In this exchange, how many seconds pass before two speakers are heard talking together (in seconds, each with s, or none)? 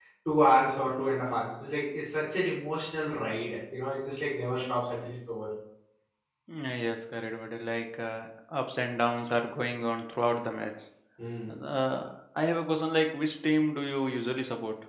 none